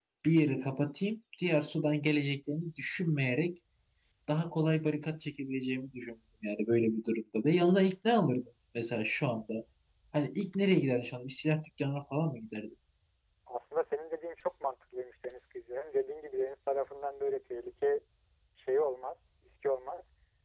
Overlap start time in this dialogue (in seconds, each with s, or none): none